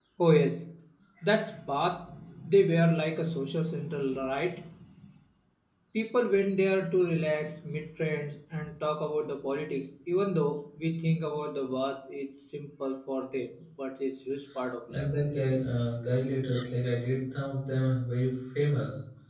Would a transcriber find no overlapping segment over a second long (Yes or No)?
Yes